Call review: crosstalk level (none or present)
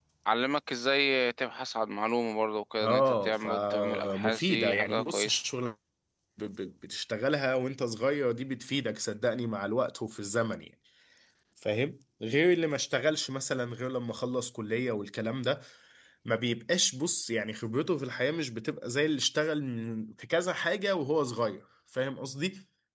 present